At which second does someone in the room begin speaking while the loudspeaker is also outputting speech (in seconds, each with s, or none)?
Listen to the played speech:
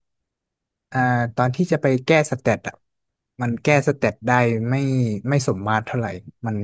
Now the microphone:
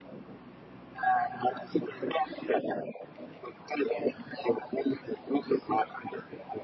none